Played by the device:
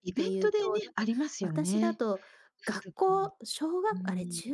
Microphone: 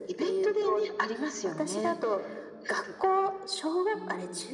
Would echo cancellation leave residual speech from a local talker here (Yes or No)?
No